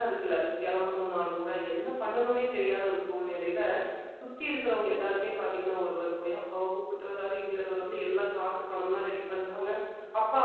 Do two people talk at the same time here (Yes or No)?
No